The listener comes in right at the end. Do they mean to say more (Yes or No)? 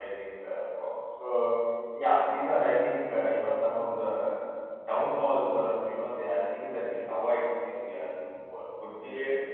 Yes